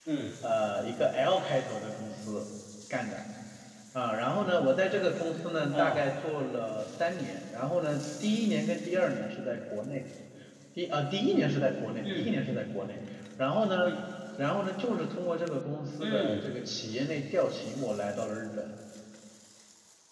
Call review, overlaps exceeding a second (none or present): none